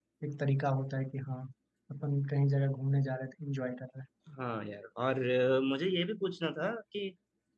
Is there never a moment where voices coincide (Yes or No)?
Yes